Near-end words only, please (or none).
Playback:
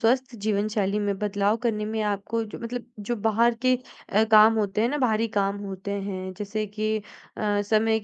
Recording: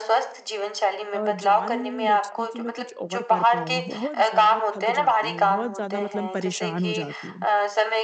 अ, जान ही नहीं बचती कि मैं कुछ और कर पाऊँ। बहुत ज़्यादा थक जाती हूँ, बहुत ज़्यादा मतलब परेशान हो जाती हूँ।